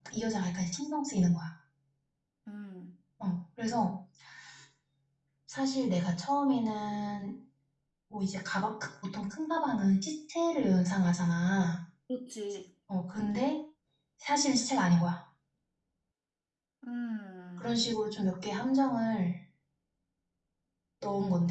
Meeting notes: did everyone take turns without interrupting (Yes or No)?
Yes